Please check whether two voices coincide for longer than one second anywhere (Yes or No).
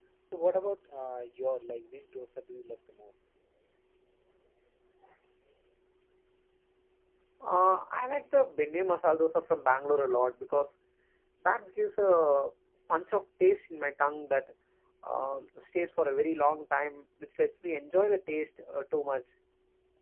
No